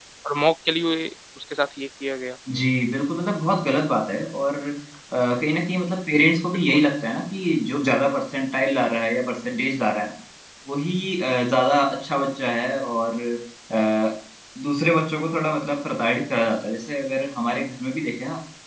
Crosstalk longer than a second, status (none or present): none